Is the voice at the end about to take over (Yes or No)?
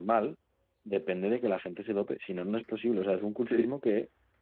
No